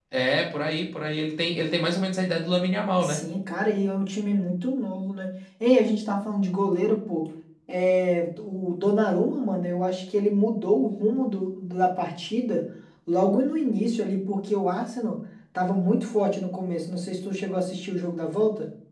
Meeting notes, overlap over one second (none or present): none